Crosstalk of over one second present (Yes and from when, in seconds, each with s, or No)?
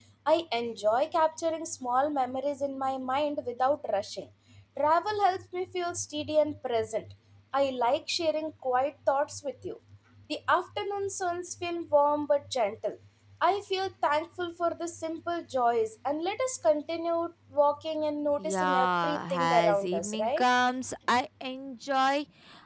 Yes, from 18.4 s